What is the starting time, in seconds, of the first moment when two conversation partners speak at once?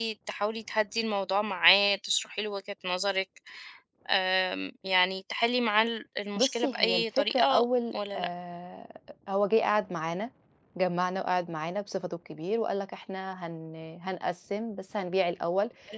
6.4 s

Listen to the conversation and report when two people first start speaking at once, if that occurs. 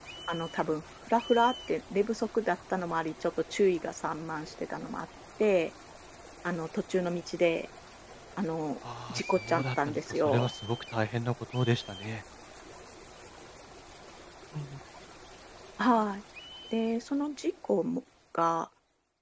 9.1 s

